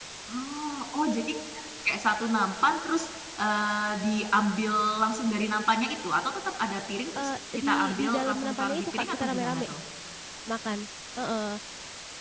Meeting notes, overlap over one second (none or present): present